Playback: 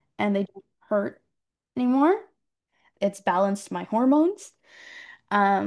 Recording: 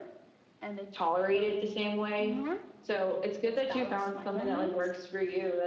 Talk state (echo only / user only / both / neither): both